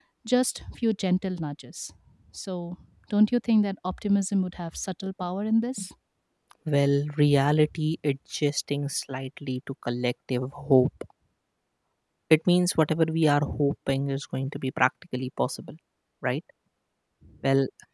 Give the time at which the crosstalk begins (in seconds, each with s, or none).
none